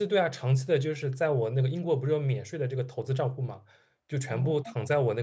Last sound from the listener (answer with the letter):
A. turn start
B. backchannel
B